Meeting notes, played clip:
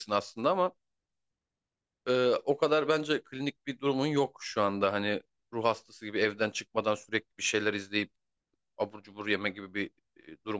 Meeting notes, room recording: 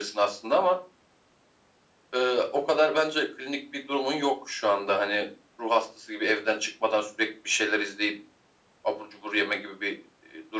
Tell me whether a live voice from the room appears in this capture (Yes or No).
No